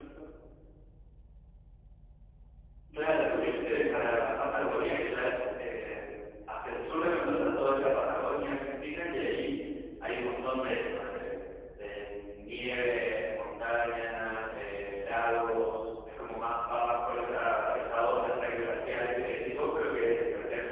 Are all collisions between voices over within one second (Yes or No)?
No